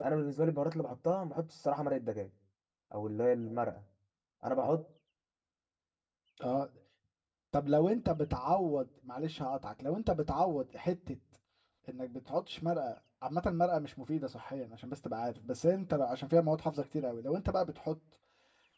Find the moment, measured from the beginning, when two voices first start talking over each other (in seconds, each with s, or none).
none